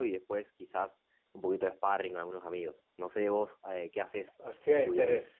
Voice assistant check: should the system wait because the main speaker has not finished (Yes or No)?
No